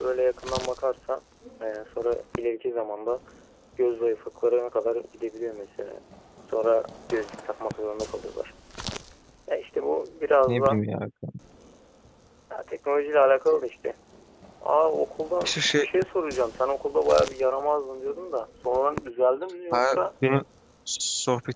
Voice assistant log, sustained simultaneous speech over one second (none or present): none